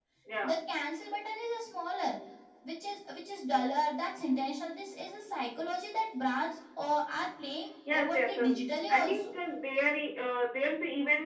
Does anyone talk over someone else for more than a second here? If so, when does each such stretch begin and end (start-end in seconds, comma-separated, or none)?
7.9-9.2